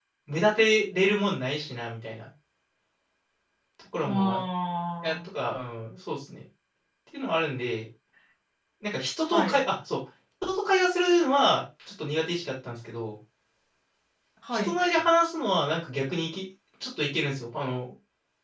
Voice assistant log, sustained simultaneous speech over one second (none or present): none